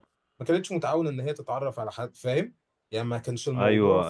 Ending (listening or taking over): taking over